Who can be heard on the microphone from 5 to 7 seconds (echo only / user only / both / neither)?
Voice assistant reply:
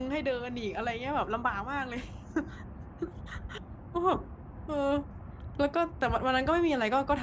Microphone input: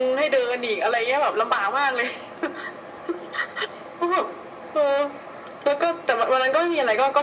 echo only